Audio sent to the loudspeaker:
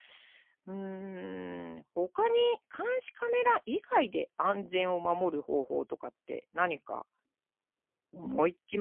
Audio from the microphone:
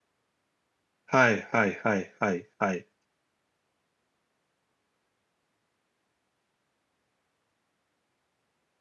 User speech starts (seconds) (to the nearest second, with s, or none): 1 s